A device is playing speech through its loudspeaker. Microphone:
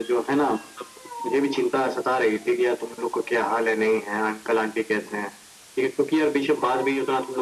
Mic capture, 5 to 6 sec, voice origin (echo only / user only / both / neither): echo only